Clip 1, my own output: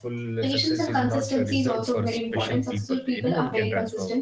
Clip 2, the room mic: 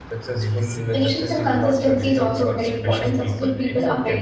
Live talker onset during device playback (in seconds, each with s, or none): 0.4 s